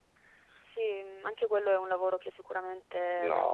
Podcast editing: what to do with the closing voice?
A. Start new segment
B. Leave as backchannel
A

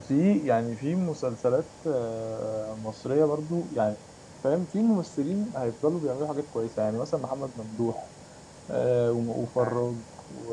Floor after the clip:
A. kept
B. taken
A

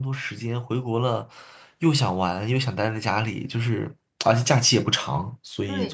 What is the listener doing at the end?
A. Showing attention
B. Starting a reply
B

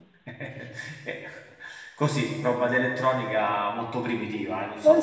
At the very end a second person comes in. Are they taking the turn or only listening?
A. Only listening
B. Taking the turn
B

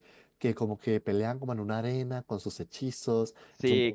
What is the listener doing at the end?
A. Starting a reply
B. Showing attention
A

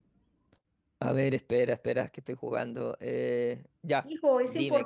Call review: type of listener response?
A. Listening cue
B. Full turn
B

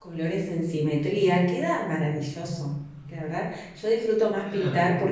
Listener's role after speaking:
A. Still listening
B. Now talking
A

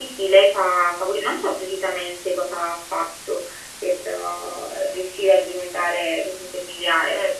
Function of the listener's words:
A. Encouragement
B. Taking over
B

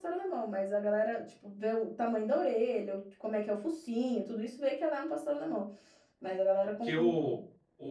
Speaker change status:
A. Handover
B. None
A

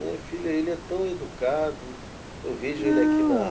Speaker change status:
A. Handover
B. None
B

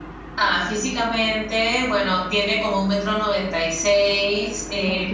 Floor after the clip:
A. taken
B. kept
B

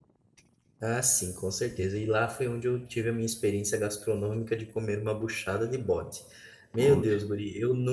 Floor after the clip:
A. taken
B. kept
B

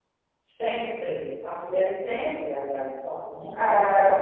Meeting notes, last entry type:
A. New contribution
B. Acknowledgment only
B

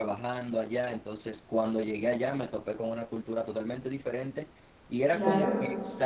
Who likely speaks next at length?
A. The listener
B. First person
B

